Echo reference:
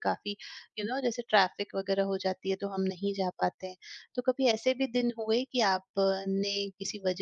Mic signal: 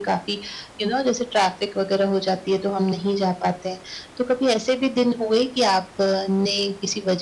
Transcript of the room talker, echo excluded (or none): none